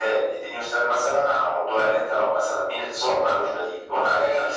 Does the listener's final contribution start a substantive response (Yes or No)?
Yes